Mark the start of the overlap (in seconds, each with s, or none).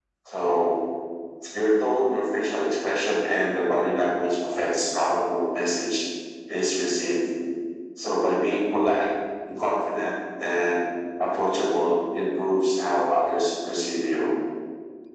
none